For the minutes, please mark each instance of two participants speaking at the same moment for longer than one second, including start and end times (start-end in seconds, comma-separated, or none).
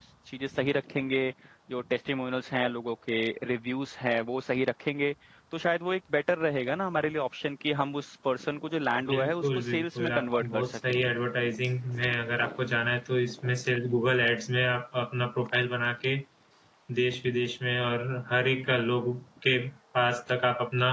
9.1-10.9